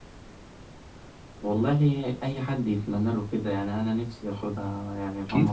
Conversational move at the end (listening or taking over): taking over